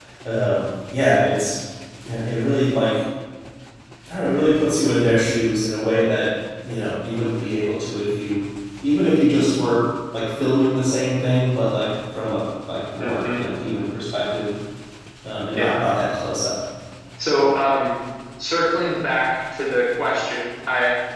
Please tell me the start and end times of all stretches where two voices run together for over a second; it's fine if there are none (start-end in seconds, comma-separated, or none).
none